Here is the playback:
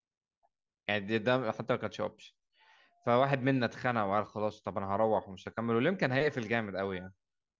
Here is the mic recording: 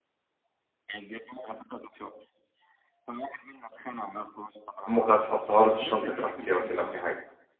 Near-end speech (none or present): present